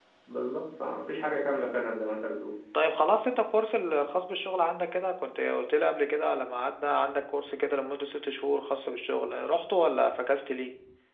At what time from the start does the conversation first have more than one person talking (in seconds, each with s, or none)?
none